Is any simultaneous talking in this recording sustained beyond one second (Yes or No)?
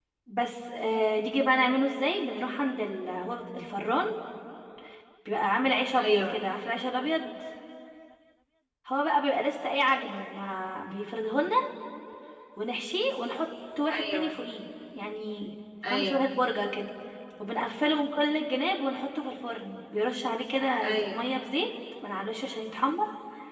No